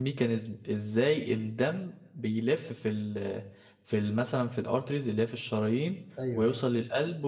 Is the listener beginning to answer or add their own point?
No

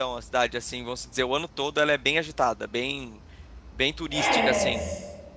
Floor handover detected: Yes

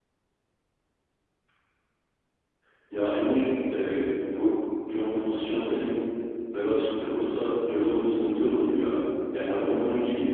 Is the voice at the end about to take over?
No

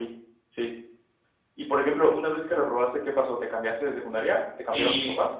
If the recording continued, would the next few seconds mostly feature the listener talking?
Yes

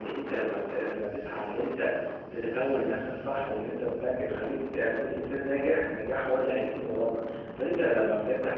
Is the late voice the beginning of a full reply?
No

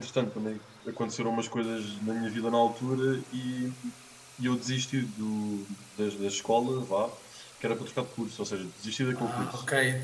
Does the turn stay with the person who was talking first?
No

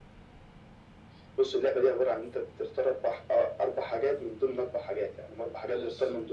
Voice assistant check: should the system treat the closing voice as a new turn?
No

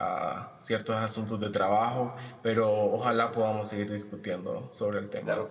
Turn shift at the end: Yes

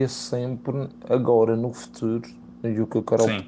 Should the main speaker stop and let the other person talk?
No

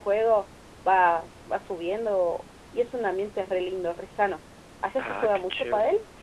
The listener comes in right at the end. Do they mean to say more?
Yes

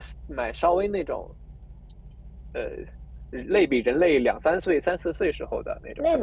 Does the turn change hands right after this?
Yes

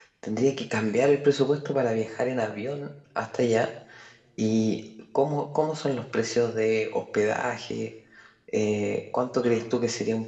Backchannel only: Yes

